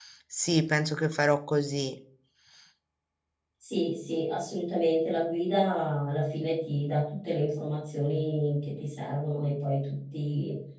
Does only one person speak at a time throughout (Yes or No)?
Yes